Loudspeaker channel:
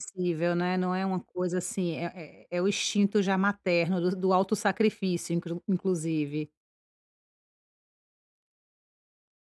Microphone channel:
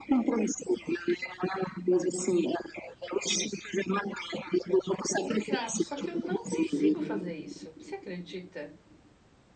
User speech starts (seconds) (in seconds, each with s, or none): 5.2 s